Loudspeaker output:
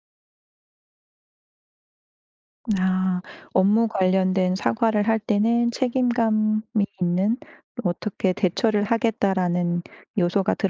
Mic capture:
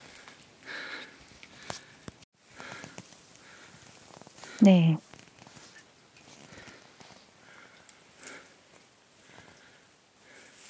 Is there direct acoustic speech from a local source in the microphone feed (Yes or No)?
Yes